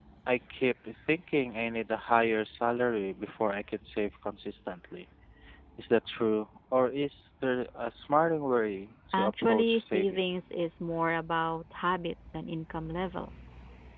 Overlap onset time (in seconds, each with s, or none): 9.1 s